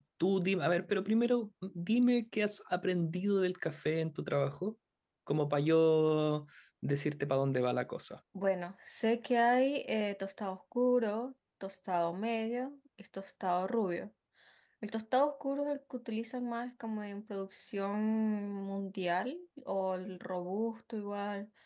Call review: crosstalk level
none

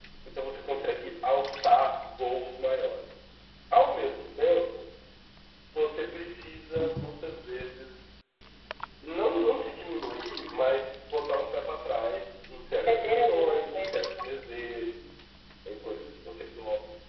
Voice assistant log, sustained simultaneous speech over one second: present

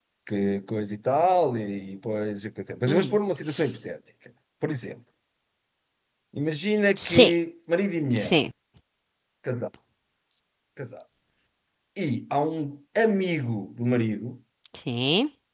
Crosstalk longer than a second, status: none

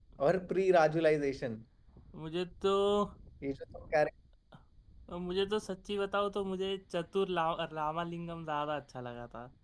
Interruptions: none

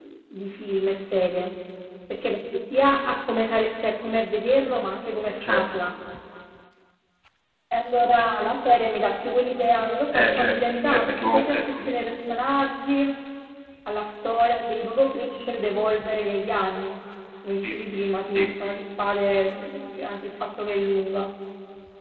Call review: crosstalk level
present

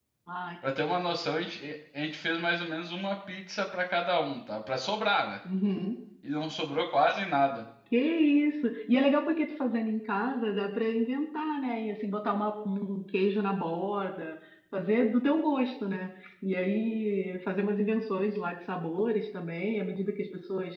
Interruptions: none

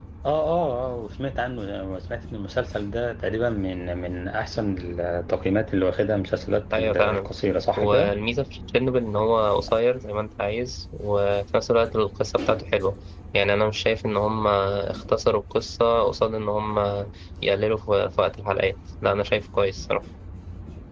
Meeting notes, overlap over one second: none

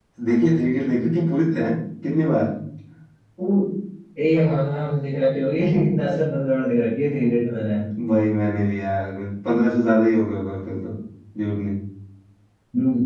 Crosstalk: none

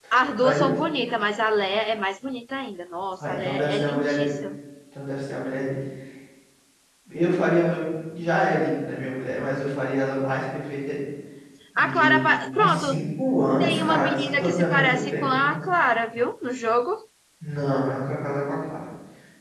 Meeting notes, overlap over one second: present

